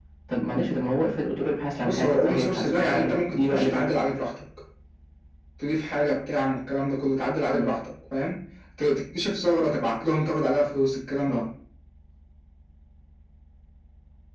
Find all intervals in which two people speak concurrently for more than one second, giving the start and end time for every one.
1.8-3.9

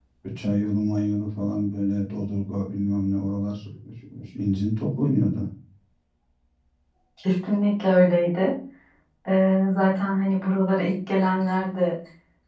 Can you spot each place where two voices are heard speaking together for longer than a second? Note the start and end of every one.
none

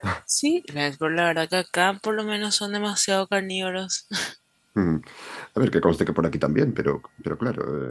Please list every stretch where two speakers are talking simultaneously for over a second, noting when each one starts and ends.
none

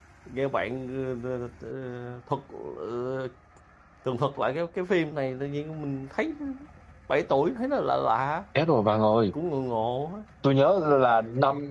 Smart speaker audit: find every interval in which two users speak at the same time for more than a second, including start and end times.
none

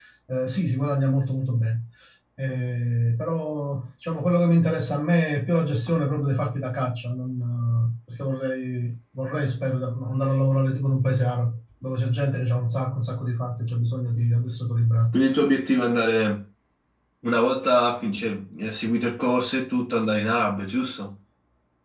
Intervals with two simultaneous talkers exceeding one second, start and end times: none

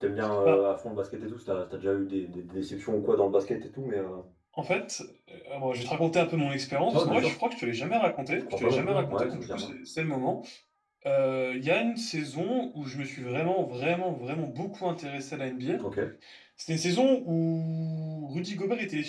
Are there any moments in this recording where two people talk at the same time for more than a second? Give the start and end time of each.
8.4-9.7

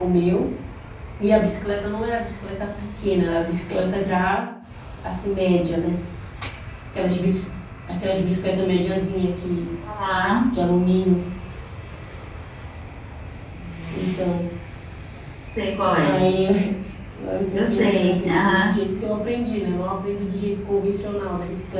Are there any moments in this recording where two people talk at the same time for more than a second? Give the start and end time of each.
17.5-18.7

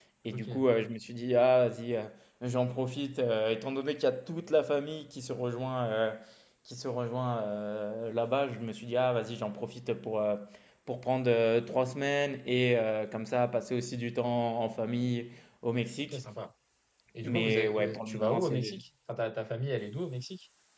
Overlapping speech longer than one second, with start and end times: 17.2-18.7

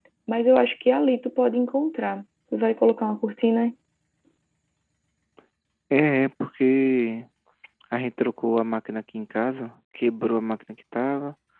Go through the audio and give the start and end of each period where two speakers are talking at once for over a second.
none

